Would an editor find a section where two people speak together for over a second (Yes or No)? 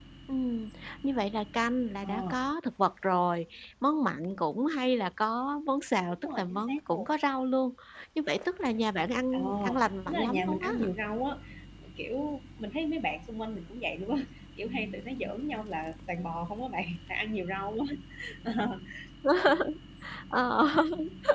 Yes